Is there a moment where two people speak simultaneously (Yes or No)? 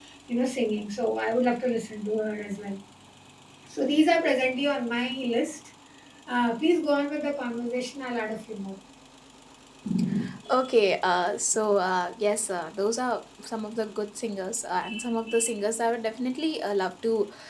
No